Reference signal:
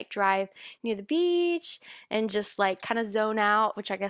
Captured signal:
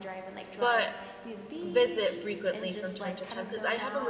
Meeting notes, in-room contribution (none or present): present